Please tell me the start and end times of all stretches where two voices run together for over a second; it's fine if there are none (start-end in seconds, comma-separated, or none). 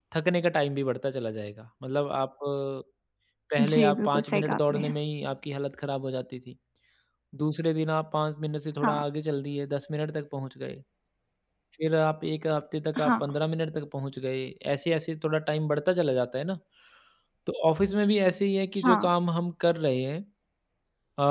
3.6-4.8